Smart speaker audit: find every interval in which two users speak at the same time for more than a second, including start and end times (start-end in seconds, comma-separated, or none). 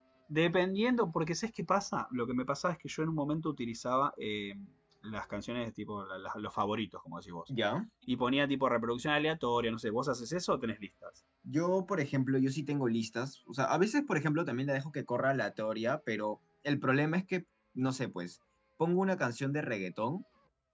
none